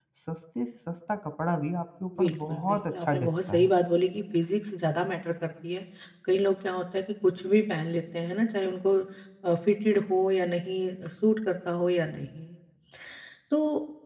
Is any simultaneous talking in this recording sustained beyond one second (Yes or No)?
Yes